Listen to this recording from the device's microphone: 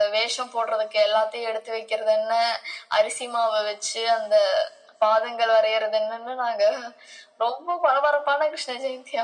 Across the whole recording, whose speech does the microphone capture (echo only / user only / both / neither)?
echo only